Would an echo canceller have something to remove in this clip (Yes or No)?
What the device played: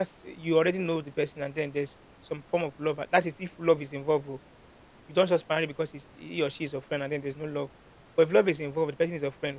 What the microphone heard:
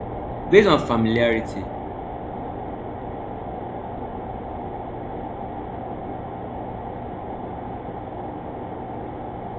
No